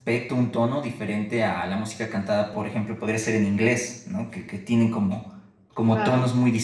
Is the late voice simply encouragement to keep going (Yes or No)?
Yes